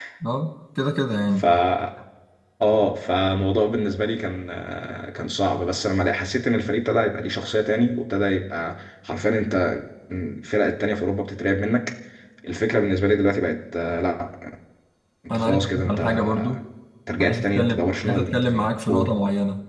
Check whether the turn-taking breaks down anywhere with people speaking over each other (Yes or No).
Yes